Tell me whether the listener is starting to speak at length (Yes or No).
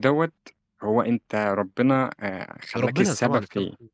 Yes